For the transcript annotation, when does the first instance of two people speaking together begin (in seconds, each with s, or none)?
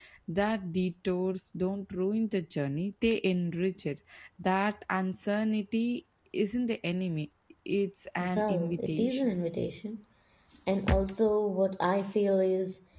8.2 s